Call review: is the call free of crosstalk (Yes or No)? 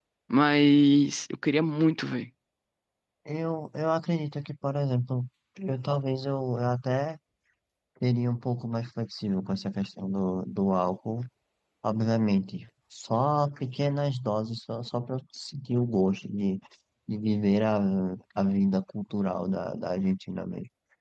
Yes